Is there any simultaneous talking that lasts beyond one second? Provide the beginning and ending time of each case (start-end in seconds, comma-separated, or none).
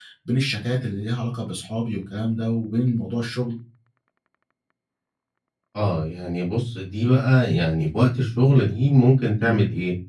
none